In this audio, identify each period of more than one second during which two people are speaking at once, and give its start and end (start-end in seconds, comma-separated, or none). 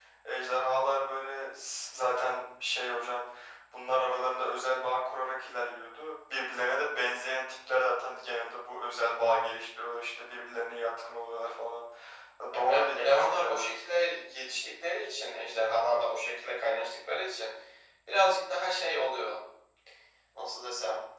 12.5-13.8